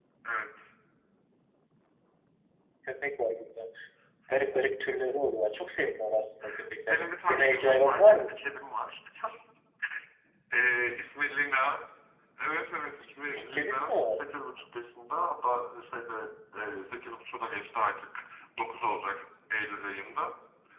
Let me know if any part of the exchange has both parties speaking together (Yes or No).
Yes